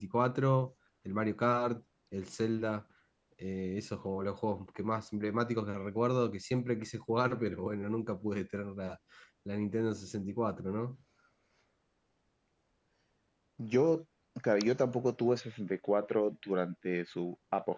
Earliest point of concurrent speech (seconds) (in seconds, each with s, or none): none